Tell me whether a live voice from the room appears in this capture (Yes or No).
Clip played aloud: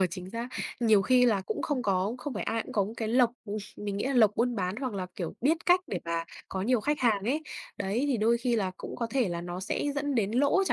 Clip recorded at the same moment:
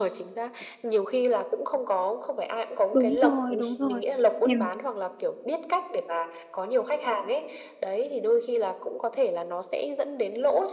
Yes